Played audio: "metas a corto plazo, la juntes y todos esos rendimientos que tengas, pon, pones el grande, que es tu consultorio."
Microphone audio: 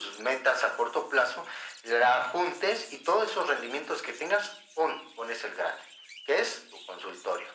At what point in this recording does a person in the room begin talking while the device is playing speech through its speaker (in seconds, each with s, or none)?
none